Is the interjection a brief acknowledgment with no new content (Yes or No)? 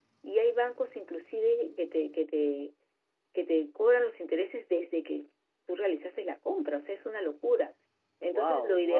No